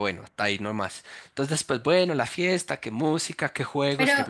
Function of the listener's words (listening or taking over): taking over